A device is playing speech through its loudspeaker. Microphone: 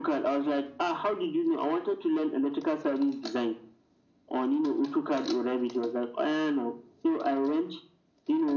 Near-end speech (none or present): none